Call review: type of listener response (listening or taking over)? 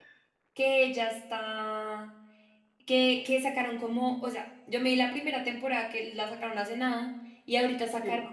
listening